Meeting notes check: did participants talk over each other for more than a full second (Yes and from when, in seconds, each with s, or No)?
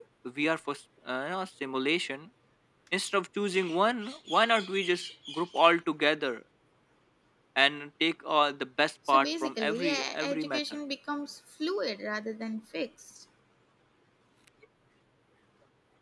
Yes, from 9.0 s